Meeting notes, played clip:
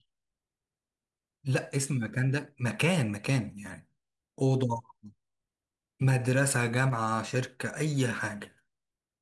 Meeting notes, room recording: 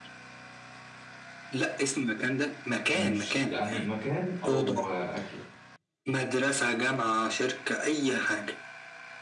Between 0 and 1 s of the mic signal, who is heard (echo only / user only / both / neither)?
neither